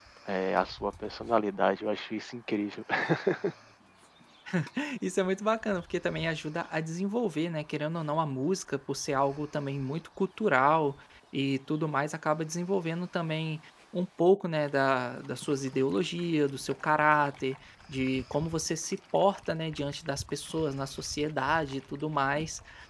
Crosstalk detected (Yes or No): No